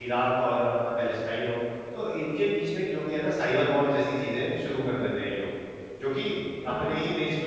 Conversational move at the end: listening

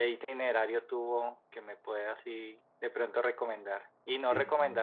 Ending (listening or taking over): listening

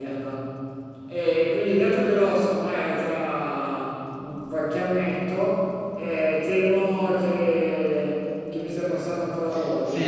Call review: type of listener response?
taking over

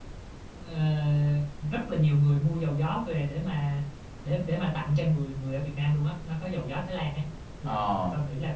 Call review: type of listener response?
listening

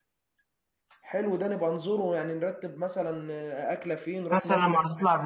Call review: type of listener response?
taking over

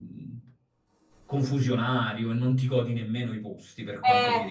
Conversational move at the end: taking over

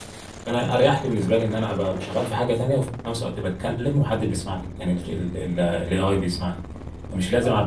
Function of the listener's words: listening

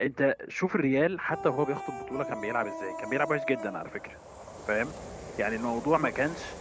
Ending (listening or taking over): listening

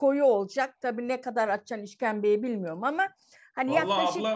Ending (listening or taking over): taking over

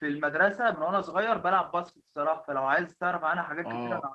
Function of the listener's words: taking over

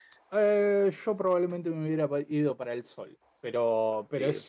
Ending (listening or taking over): listening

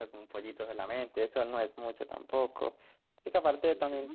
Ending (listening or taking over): taking over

